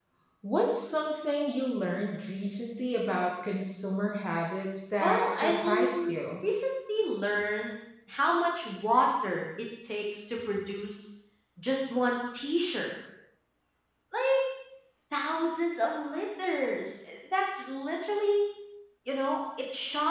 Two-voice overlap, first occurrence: 5 s

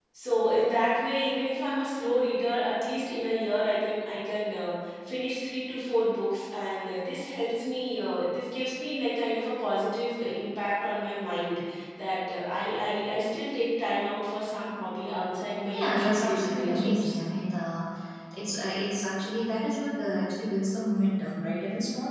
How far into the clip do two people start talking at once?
16 s

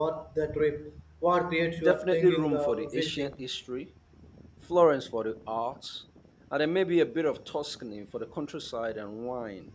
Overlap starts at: 2 s

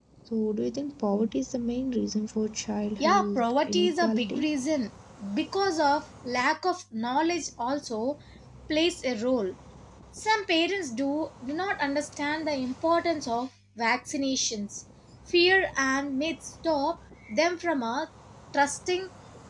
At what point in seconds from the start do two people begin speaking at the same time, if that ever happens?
3 s

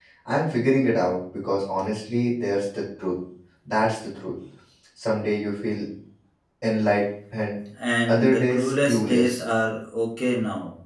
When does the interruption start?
8 s

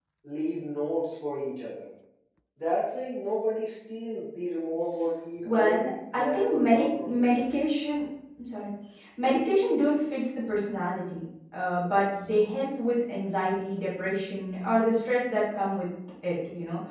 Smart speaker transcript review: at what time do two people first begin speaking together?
5 s

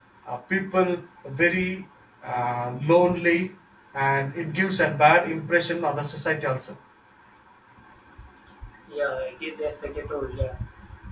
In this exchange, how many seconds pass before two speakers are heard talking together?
none

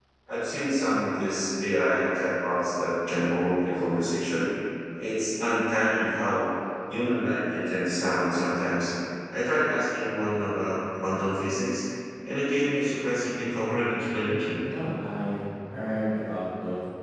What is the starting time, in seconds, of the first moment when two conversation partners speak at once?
none

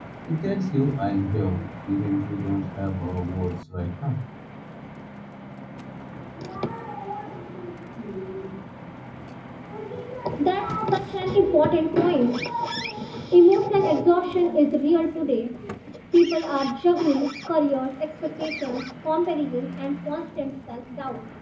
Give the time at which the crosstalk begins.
none

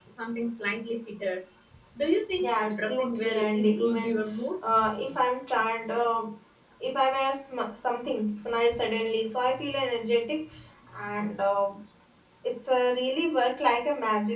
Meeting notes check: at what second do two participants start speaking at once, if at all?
2 s

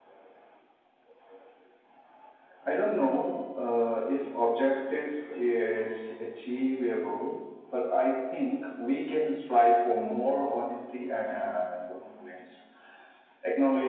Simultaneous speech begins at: none

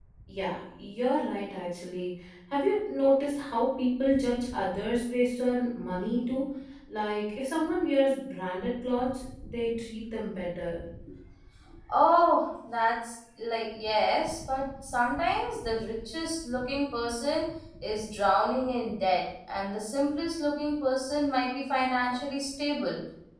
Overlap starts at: none

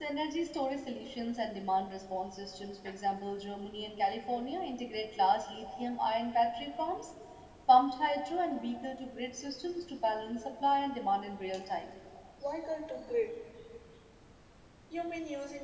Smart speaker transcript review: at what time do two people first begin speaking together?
none

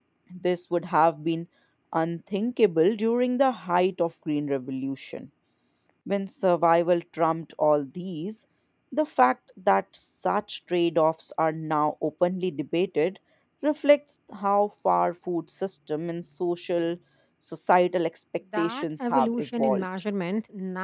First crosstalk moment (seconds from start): 19 s

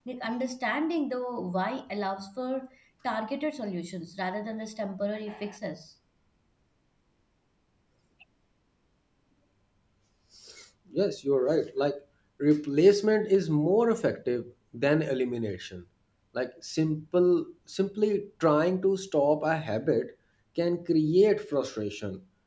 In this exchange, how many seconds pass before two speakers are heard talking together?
none

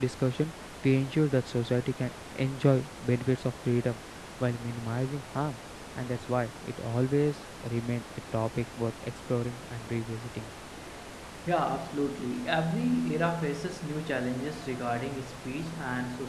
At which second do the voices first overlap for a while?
none

